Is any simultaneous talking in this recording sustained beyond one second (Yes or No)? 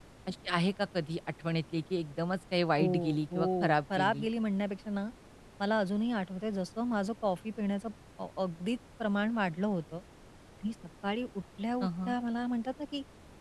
Yes